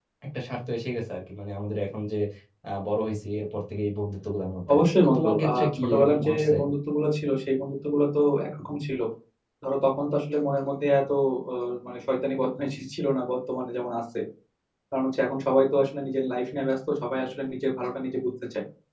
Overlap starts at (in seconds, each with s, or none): 4.7 s